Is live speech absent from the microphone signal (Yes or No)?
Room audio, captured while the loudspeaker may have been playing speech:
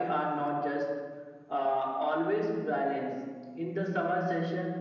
Yes